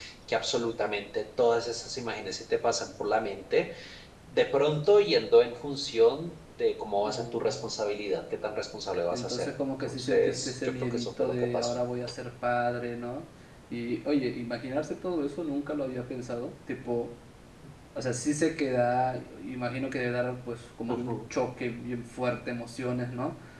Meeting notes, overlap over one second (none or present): present